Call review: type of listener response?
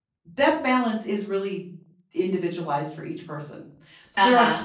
listening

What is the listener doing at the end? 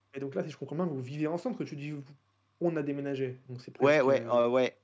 taking over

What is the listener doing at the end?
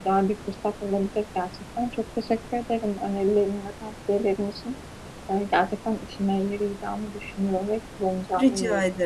taking over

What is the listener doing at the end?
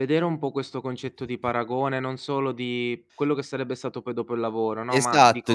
taking over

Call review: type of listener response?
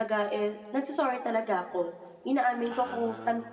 listening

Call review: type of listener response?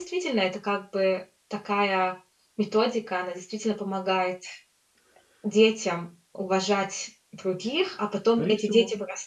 listening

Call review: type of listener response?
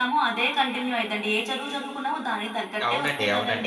taking over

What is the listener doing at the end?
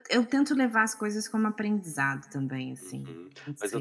taking over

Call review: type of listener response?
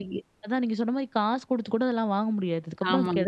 listening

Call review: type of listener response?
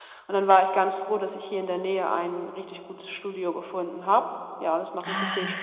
taking over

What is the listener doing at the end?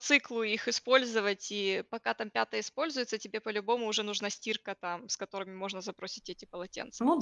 taking over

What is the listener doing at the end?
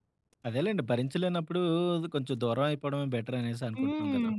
taking over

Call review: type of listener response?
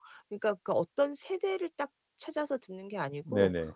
listening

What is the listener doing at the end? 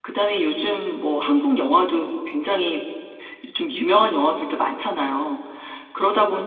listening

